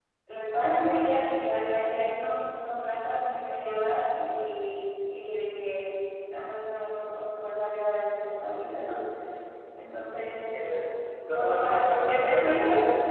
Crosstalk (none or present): present